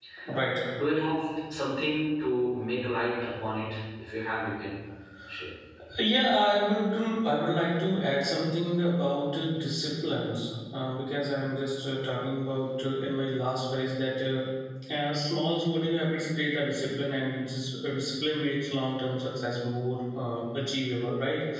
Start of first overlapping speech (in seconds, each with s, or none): none